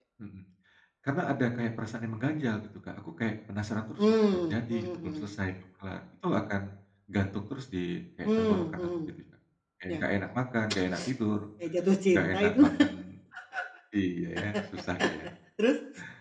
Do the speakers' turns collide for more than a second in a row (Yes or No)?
Yes